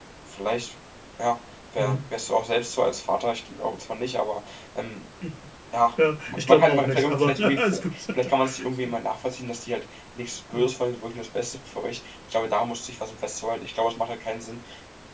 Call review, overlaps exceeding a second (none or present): present